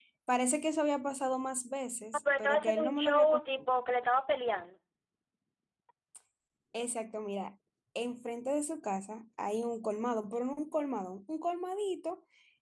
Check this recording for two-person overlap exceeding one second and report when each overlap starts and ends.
2.1-3.4

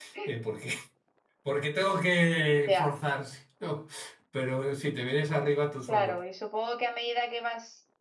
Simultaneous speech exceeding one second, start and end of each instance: none

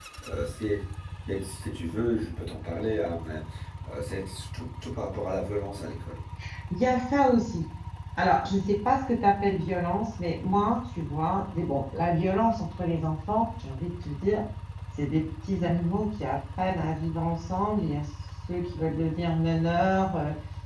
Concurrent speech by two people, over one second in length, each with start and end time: none

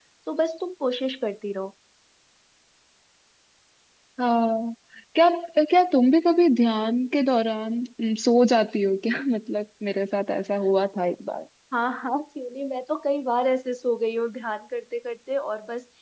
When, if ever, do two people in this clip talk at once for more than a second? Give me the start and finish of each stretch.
none

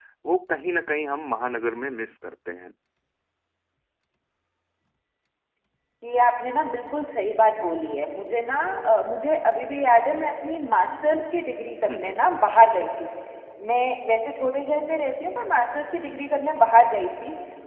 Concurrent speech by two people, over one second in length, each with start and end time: none

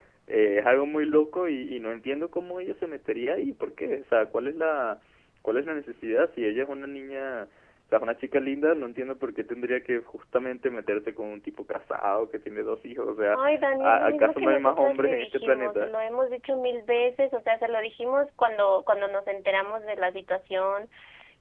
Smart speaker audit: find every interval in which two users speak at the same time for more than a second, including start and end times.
13.8-15.9

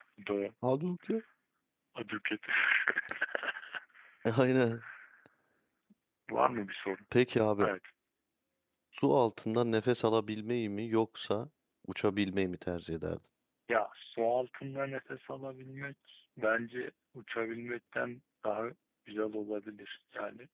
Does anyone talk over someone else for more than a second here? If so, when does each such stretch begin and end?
none

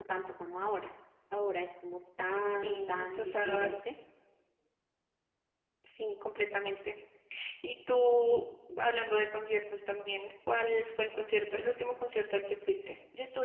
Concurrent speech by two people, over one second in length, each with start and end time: 2.5-3.8

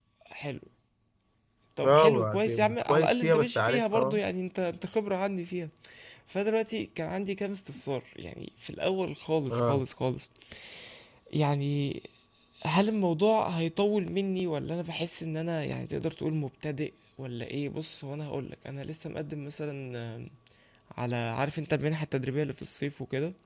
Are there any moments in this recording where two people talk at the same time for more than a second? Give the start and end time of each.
1.8-4.2

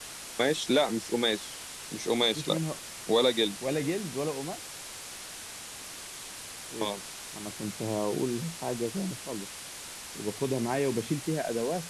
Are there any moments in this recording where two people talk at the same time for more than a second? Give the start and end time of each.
none

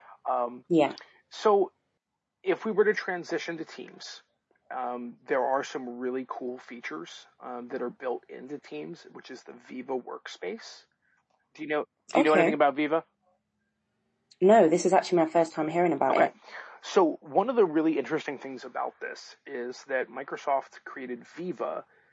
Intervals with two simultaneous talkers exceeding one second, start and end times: none

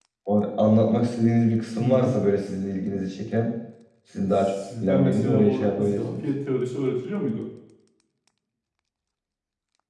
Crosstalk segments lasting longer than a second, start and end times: 4.3-6.2

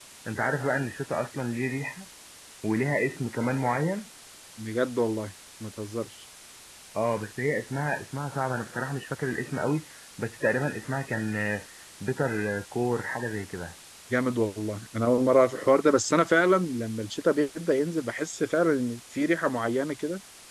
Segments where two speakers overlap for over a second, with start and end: none

